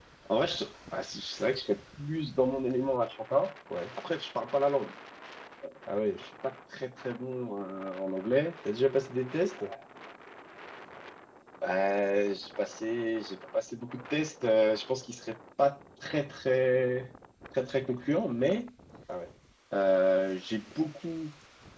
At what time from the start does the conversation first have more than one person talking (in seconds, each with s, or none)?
none